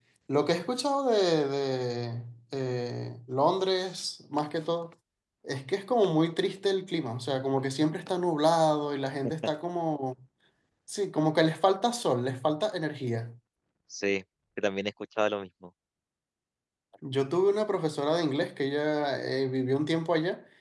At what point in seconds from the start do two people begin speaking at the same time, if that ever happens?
none

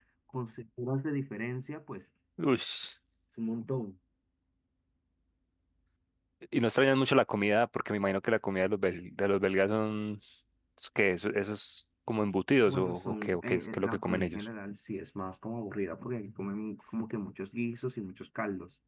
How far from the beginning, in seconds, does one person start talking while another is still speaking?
12.6 s

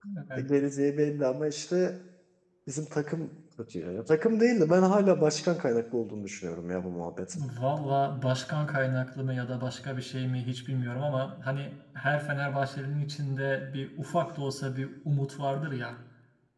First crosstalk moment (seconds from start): none

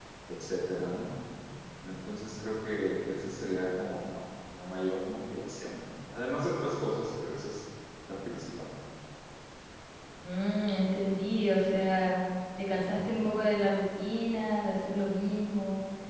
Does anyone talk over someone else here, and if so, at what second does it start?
none

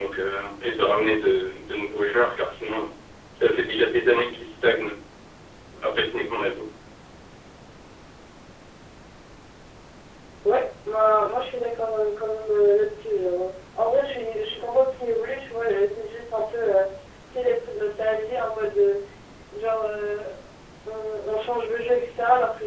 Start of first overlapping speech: none

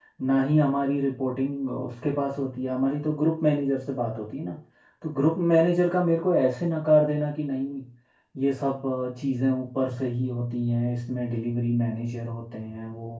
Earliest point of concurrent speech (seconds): none

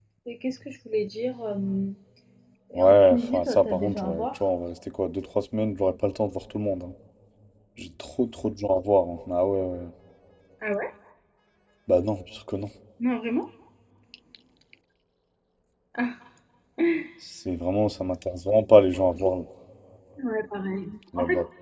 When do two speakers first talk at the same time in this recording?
2.8 s

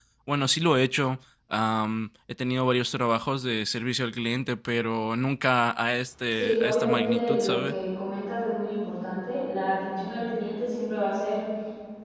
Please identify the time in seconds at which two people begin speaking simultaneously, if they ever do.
6.3 s

